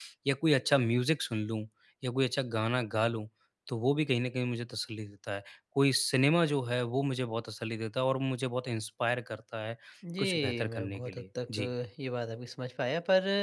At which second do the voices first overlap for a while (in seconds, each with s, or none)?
10.2 s